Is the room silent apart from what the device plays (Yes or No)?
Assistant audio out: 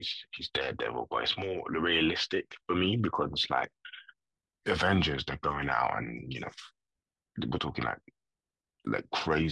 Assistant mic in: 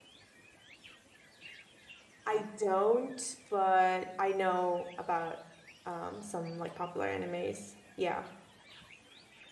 No